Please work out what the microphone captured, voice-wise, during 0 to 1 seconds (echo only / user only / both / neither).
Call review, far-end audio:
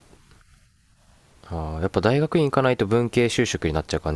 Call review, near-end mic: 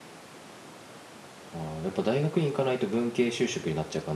neither